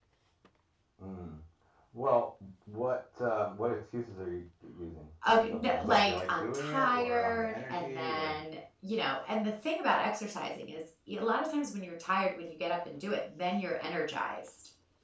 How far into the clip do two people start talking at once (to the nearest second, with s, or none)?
5 s